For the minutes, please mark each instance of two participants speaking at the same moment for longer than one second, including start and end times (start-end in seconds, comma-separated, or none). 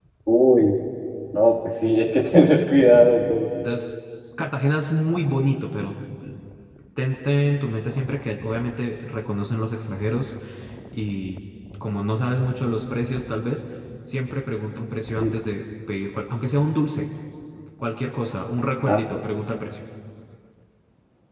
none